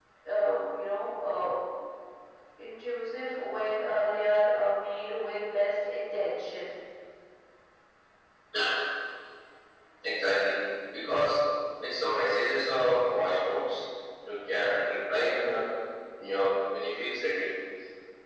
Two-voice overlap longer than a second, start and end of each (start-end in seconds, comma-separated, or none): none